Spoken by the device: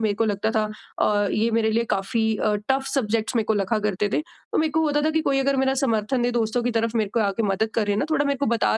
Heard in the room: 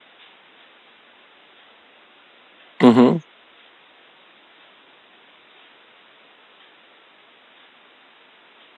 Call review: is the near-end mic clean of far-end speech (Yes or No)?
Yes